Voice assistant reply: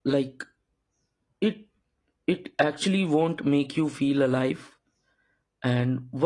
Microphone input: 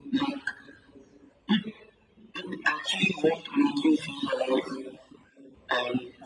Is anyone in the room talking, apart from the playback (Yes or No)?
No